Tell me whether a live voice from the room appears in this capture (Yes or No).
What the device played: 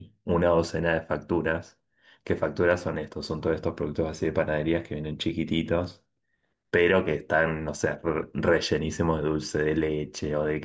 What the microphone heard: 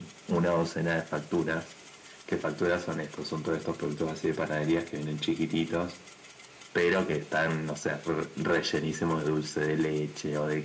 No